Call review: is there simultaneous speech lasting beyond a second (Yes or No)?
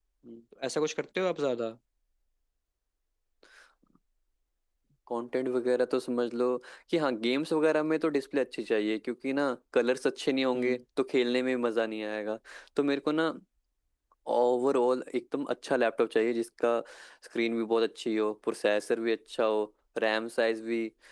No